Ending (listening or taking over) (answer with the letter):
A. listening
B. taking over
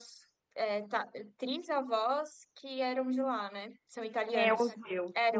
B